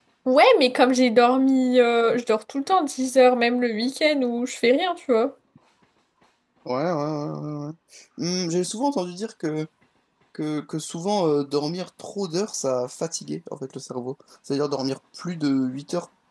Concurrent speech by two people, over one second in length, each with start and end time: none

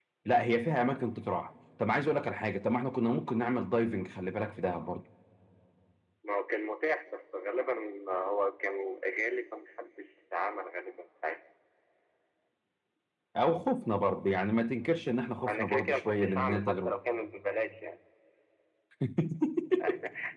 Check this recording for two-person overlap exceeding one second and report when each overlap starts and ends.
15.5-16.9

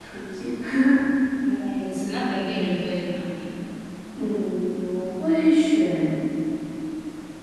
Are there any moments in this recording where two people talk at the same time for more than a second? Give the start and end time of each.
none

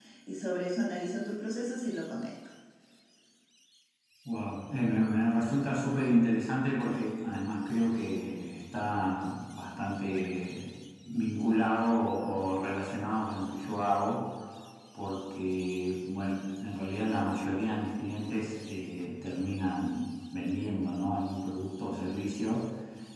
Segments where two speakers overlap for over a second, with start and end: none

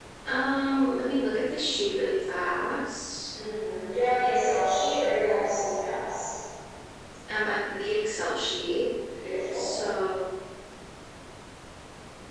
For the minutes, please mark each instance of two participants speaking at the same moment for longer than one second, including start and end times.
none

